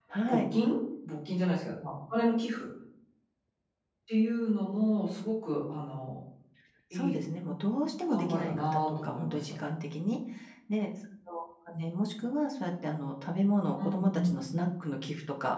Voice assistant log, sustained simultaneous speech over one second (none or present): present